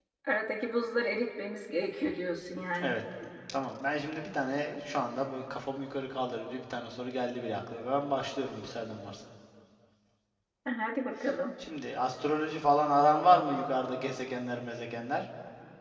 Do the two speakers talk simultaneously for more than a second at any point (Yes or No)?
No